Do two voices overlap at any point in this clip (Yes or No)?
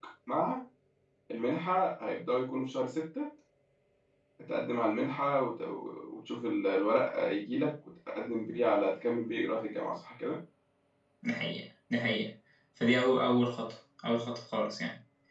No